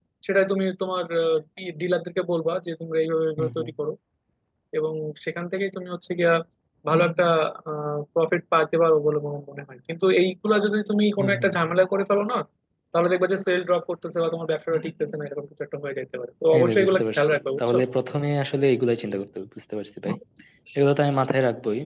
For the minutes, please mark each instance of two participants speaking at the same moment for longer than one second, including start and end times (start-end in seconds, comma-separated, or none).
16.5-17.8